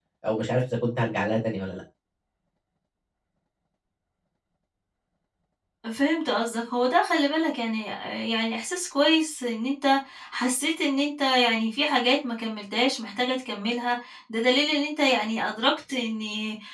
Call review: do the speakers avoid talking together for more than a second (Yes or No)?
Yes